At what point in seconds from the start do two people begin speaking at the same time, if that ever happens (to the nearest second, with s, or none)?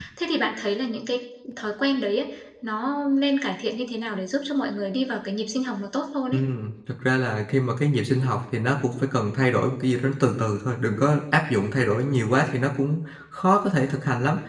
none